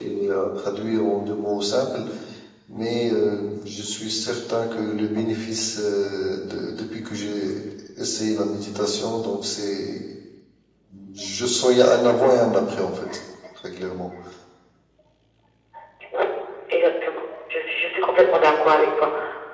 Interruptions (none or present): none